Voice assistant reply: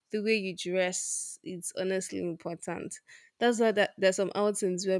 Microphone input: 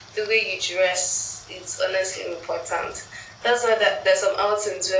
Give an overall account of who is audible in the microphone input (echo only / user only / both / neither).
echo only